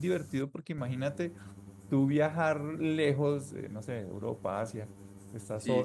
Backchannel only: Yes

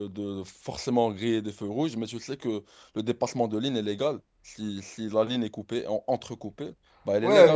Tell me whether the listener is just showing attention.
No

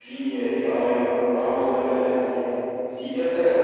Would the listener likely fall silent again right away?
Yes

